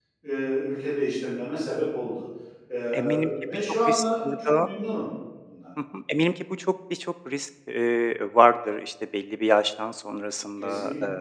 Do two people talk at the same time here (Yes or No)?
Yes